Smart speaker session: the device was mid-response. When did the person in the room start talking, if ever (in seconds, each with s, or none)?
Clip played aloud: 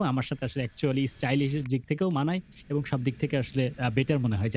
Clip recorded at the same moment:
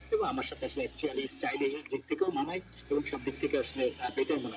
none